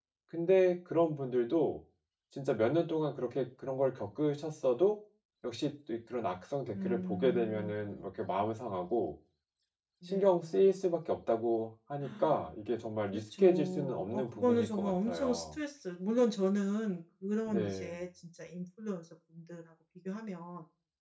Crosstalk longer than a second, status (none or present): present